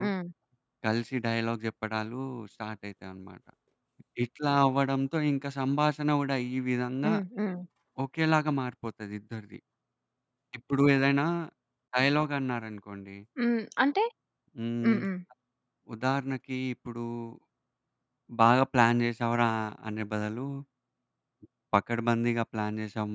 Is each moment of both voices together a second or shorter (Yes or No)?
Yes